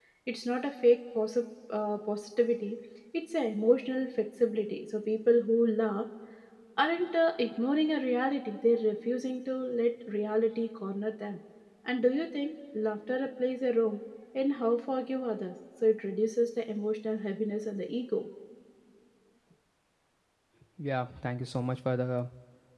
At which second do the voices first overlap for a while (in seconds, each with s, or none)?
none